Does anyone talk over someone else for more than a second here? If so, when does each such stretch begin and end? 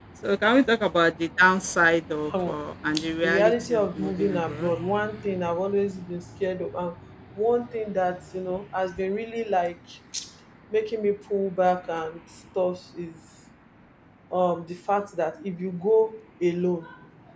3.2-4.7

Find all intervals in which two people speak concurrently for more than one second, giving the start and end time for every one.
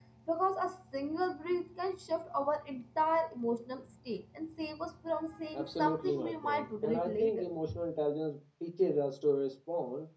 5.5-7.5

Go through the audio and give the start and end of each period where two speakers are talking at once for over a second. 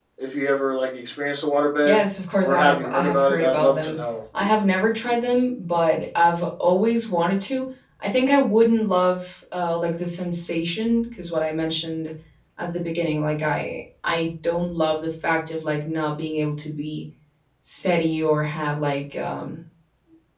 2.4-4.0

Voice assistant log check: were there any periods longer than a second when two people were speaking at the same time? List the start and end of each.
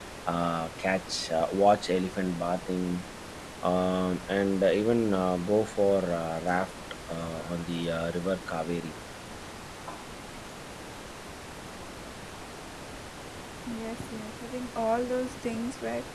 none

